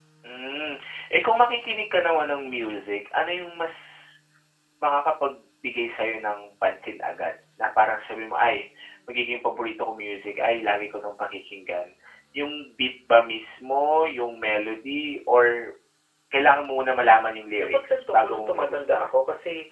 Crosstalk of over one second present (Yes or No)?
Yes